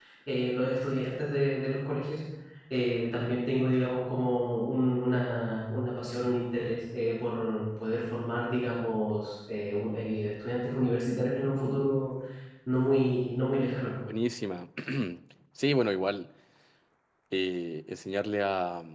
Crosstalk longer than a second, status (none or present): none